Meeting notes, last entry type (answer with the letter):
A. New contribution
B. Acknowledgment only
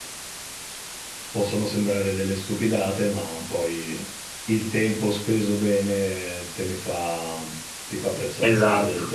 A